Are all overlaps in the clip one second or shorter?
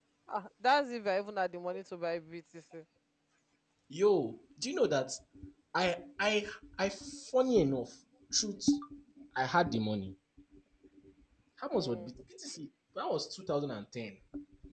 Yes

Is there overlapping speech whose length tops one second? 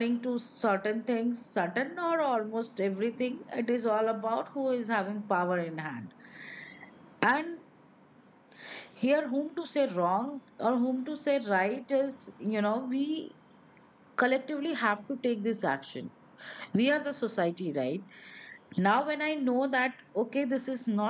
No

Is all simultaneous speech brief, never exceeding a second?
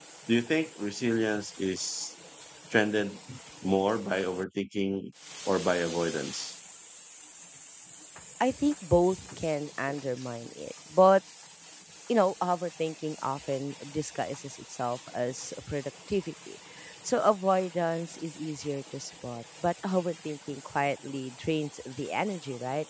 Yes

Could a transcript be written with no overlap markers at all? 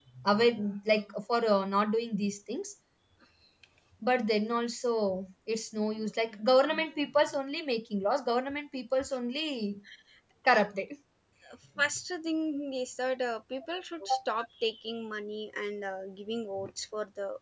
Yes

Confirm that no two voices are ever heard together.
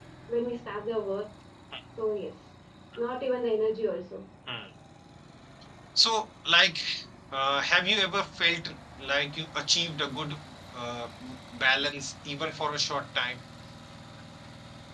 Yes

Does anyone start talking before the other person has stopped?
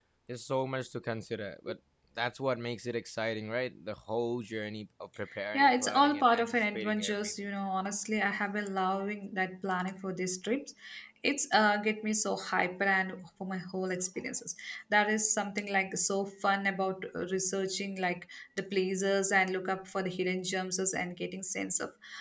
Yes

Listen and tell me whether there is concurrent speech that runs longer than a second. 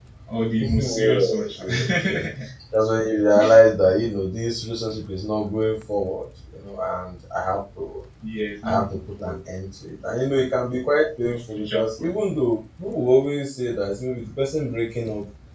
Yes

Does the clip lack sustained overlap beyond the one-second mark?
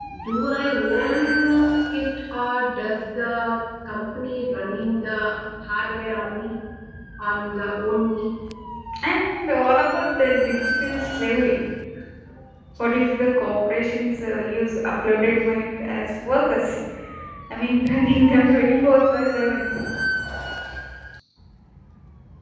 Yes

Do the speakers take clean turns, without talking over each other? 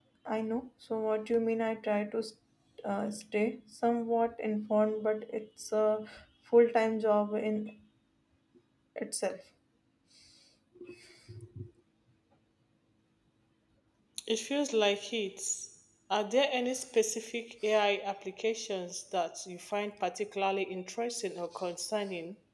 Yes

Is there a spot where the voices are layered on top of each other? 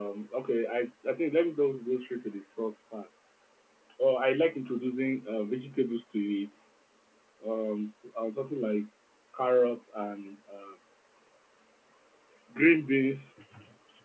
No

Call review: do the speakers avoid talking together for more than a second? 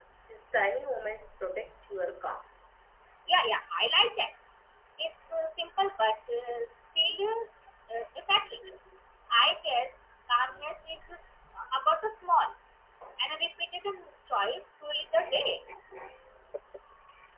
Yes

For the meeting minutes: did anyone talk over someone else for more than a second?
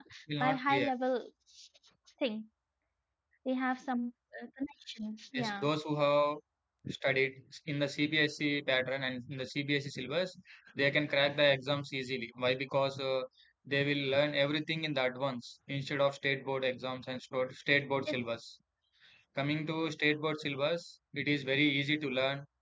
No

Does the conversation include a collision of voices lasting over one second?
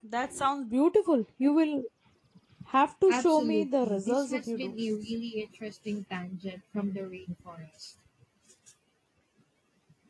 Yes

